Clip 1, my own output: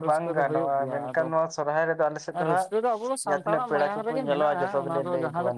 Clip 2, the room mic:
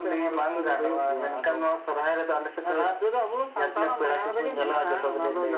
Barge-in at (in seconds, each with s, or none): none